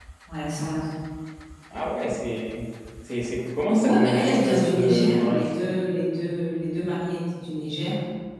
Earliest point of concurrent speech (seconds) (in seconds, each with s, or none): 3.7 s